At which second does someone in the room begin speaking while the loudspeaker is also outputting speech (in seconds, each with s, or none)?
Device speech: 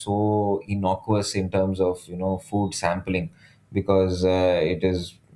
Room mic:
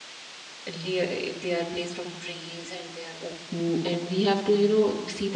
0.7 s